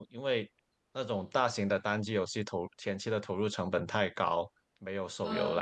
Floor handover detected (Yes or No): No